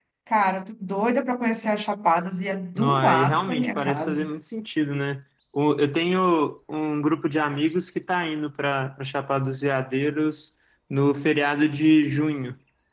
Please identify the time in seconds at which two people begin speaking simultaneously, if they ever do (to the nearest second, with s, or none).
3 s